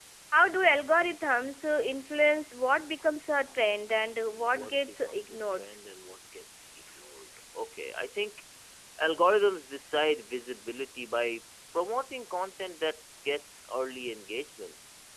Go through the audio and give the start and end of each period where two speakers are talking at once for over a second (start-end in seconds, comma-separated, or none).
4.3-5.7